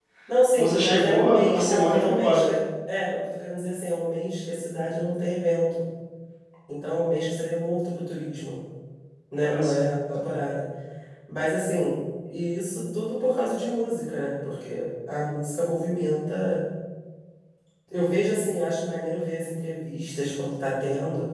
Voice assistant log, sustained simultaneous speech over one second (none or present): present